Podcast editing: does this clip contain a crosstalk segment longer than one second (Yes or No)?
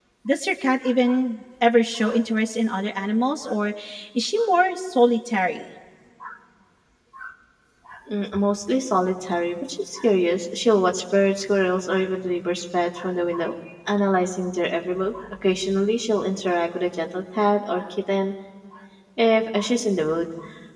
No